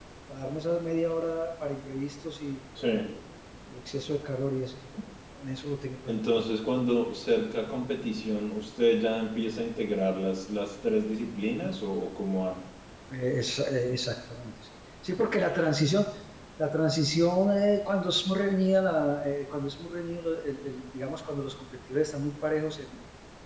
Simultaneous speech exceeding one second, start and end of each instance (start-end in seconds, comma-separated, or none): none